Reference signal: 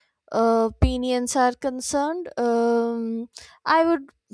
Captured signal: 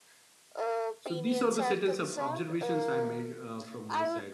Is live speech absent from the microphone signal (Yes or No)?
No